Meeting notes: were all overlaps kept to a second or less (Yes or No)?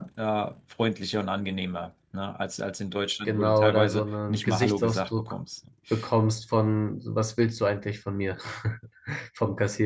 No